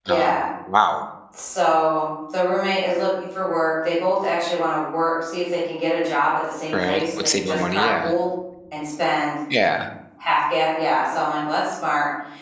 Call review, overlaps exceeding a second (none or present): present